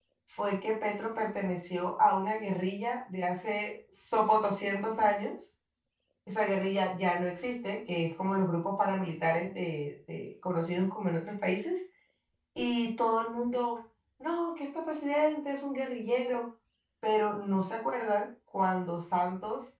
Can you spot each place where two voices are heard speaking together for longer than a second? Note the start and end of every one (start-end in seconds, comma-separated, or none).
none